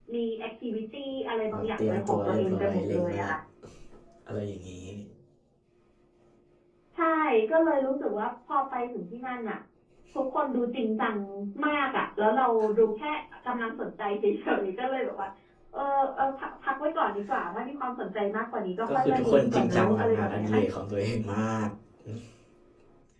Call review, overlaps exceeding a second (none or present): present